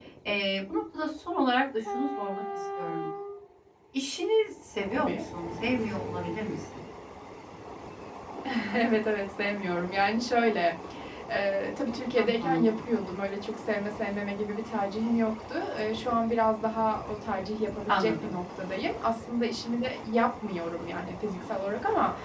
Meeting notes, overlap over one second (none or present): none